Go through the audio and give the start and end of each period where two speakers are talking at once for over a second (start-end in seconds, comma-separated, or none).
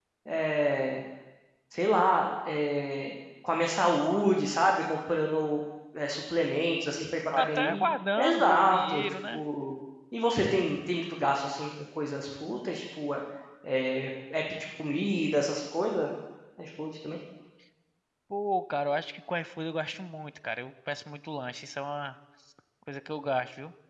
8.2-9.4